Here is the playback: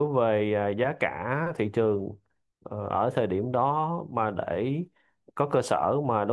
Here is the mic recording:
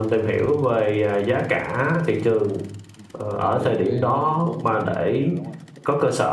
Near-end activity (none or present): present